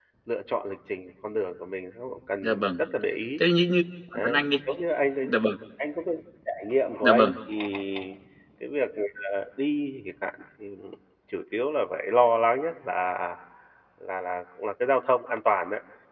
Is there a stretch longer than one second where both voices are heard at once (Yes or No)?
No